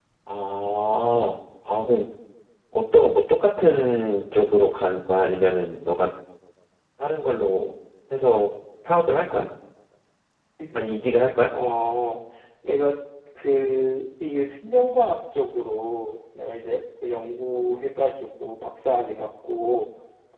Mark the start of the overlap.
none

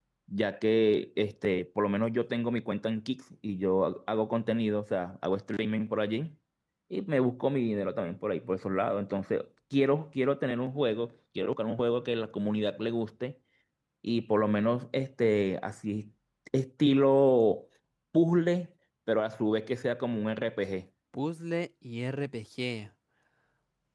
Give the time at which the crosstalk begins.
none

